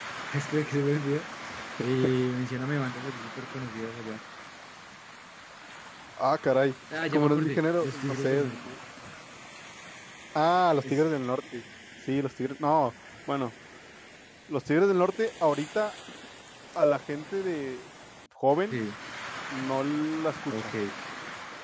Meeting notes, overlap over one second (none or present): present